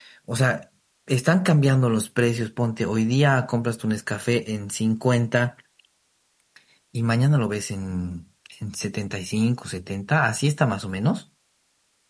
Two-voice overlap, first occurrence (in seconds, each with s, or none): none